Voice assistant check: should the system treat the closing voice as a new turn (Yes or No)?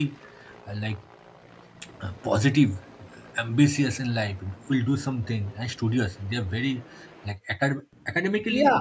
Yes